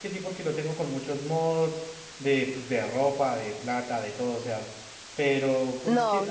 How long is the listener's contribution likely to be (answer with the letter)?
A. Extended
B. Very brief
A